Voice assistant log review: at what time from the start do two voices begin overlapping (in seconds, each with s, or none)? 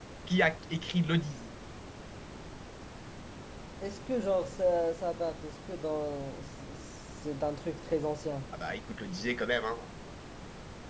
none